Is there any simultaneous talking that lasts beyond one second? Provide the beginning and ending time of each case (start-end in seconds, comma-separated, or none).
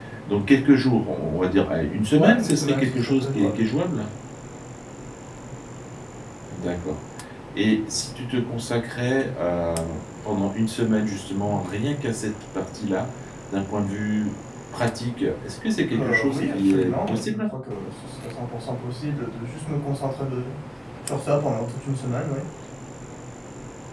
2.1-3.6, 15.9-17.5